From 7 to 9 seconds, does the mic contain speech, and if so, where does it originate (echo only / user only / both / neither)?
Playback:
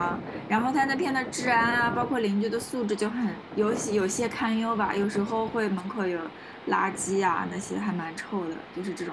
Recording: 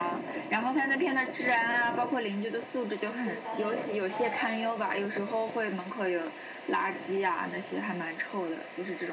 echo only